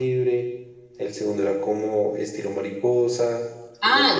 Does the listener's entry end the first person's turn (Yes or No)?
Yes